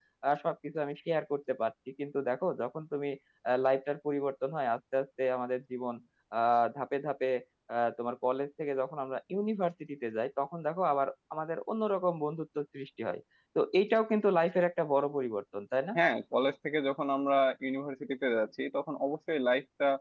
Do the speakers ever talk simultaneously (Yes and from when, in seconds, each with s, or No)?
No